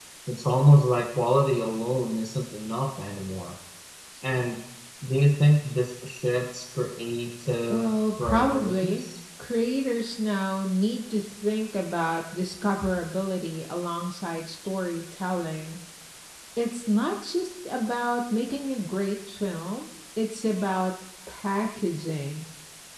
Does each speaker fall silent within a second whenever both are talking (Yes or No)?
No